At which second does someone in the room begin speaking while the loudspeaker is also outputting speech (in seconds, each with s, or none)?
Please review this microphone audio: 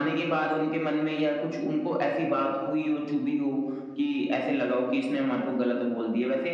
none